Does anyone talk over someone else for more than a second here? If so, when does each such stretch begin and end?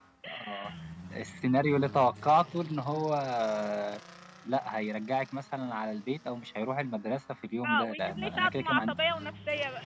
7.7-8.9

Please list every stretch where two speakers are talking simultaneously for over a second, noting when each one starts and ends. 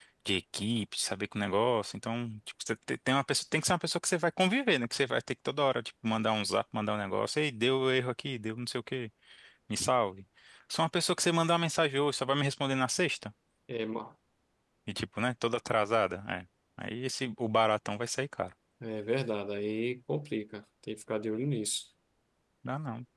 none

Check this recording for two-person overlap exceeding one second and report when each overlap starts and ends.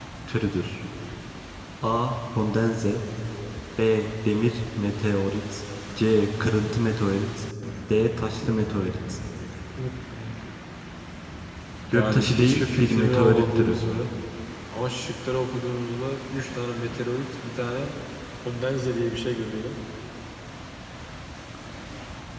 11.9-13.8

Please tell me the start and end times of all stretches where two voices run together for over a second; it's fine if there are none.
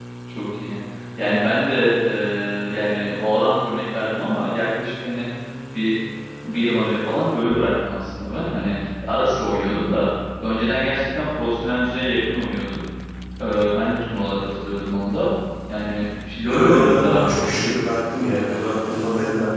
16.4-17.7

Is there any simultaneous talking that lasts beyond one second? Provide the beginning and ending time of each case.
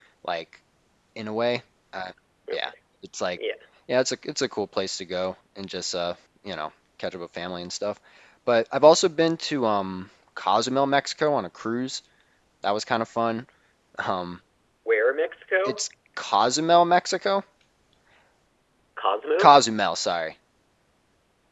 none

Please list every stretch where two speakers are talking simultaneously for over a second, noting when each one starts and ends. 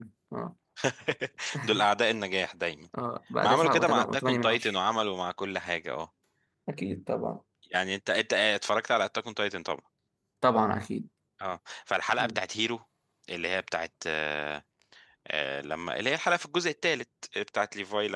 3.4-4.8

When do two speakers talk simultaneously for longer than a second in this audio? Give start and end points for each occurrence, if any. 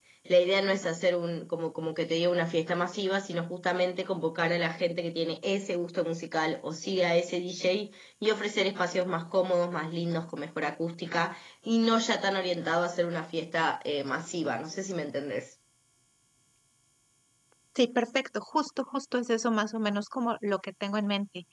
none

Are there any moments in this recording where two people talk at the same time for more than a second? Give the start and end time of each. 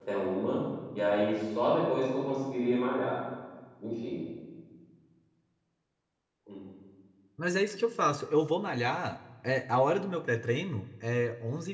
none

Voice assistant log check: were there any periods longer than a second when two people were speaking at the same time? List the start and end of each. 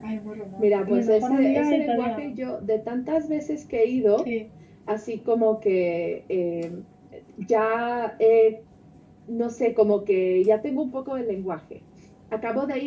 0.6-2.3

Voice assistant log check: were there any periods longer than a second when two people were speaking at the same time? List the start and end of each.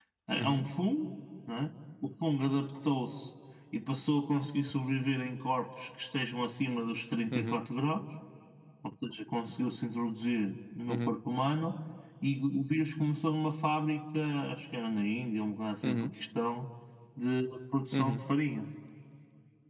none

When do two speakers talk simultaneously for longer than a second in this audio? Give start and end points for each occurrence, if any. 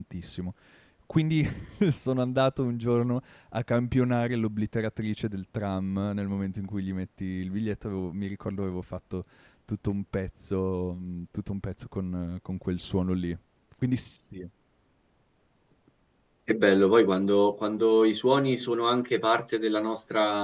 none

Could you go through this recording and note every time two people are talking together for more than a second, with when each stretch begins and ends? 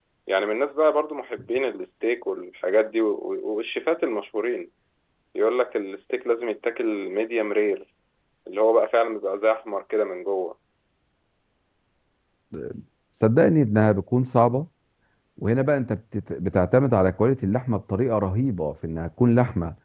none

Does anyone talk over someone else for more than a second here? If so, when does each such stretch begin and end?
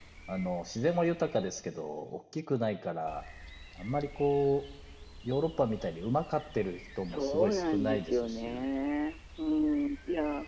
7.1-8.6

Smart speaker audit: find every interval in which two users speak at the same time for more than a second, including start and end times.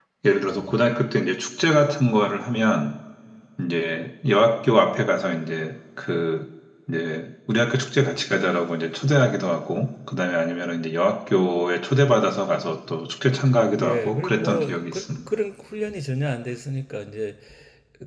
13.8-15.0

